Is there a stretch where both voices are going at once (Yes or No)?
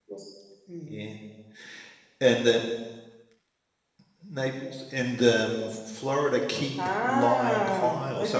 Yes